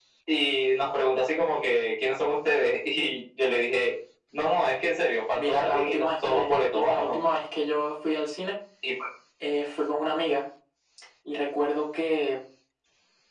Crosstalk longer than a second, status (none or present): present